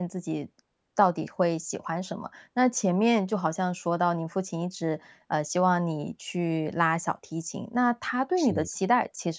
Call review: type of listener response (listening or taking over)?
listening